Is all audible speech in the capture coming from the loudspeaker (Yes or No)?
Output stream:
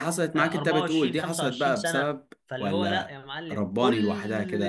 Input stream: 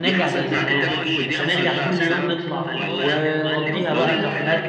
No